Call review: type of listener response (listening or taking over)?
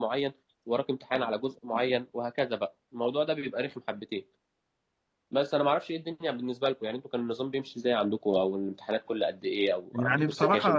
taking over